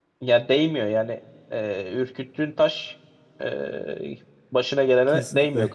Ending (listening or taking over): taking over